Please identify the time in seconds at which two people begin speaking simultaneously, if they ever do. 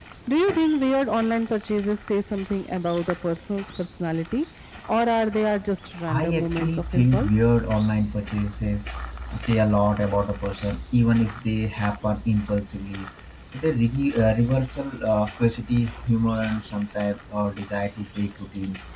6.1 s

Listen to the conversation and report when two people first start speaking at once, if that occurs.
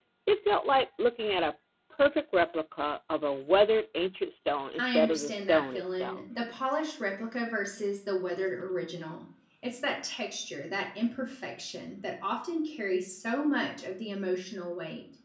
4.8 s

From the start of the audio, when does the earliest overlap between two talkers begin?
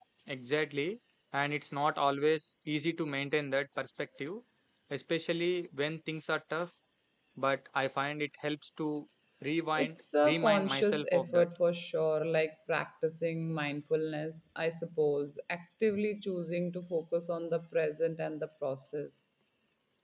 9.8 s

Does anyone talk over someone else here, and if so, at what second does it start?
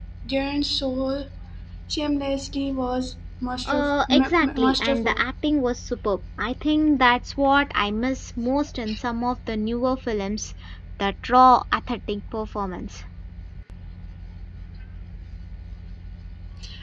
3.6 s

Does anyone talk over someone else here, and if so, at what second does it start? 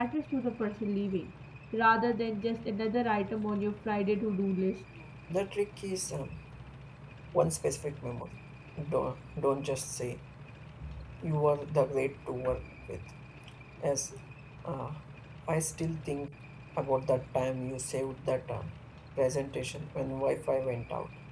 none

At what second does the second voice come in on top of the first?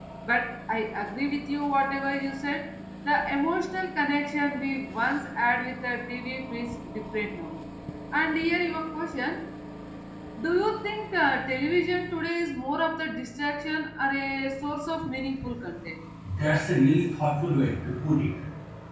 none

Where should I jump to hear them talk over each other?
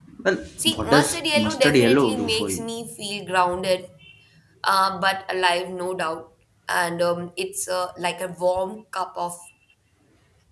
0.7 s

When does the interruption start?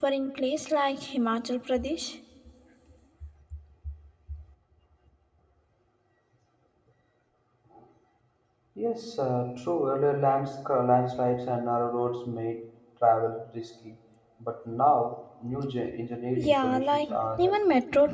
16.4 s

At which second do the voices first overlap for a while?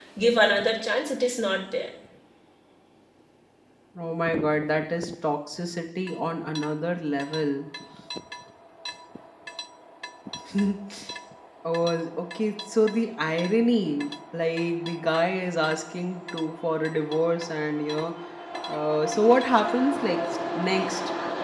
none

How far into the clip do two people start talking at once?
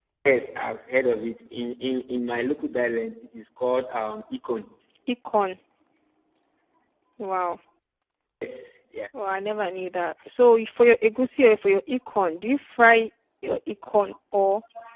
none

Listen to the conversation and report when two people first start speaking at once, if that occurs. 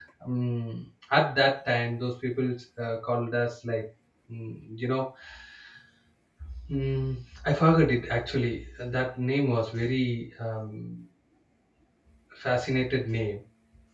none

